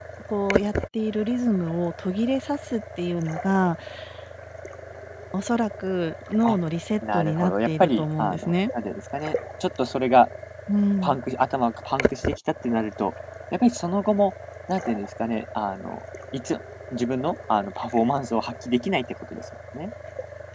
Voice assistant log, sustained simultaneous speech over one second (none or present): present